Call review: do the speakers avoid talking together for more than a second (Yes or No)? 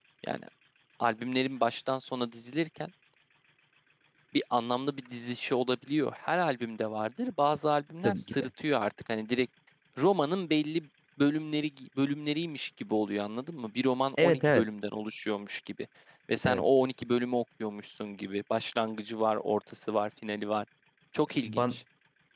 Yes